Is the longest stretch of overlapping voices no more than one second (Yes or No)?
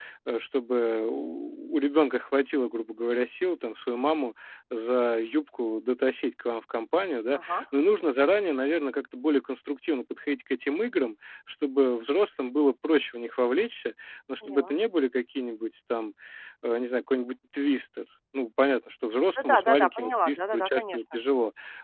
No